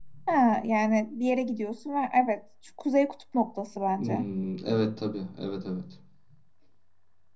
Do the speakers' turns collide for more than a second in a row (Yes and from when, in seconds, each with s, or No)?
No